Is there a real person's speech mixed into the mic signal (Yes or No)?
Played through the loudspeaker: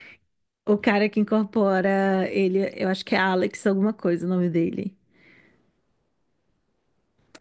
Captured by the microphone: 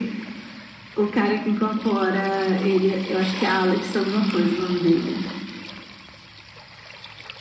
No